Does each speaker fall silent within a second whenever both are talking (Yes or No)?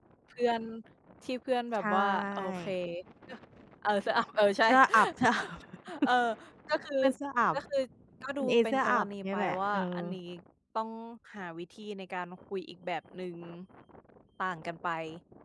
No